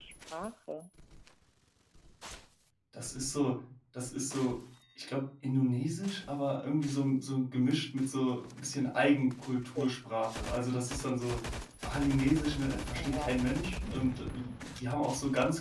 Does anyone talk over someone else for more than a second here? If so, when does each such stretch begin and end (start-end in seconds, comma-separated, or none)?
none